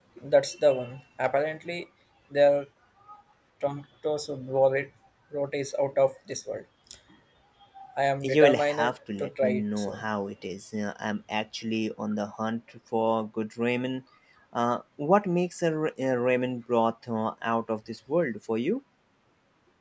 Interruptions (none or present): present